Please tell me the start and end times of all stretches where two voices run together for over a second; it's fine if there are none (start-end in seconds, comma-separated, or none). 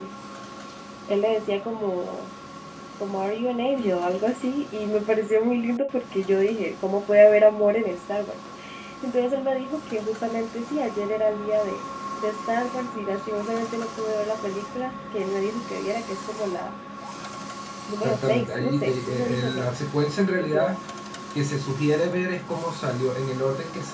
18.0-19.7